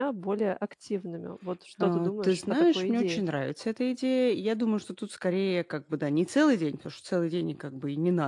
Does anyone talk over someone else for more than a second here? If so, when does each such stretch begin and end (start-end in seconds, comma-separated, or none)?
1.8-3.2